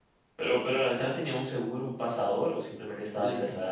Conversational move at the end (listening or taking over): taking over